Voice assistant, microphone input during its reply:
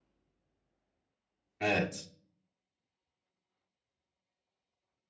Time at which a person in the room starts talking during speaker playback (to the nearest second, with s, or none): 2 s